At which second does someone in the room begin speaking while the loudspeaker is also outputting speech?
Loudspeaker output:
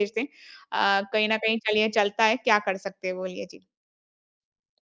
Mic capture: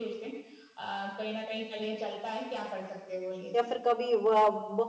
3.5 s

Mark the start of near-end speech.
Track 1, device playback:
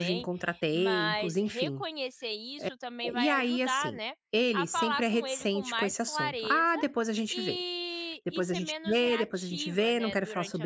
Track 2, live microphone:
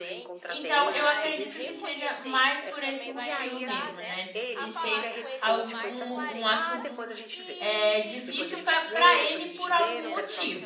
0.5 s

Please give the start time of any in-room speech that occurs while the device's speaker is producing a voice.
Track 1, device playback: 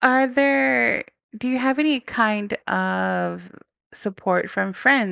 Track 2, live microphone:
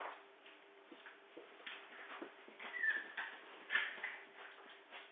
none

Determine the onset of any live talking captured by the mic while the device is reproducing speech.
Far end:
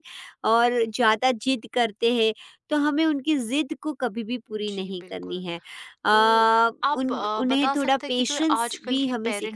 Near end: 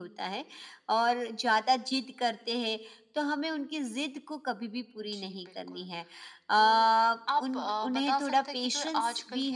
none

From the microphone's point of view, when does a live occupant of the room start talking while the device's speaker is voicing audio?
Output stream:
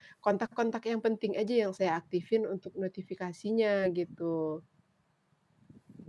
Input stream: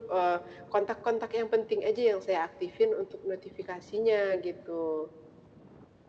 none

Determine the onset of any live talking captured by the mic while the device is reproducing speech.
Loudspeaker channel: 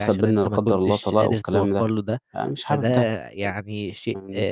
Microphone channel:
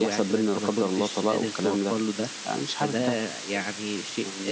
none

